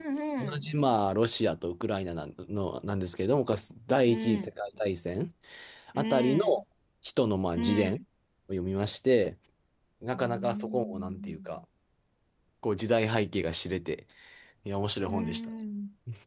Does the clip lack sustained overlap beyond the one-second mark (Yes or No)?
No